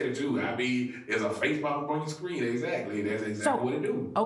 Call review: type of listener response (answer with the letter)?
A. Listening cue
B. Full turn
B